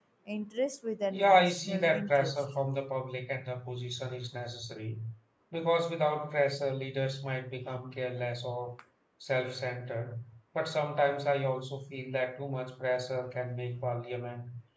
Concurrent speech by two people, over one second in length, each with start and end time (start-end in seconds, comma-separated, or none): 1.1-2.4